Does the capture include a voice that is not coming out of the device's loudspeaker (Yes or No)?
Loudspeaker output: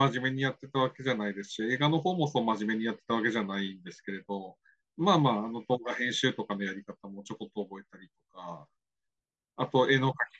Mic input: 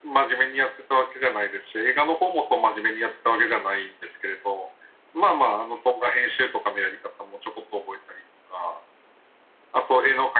No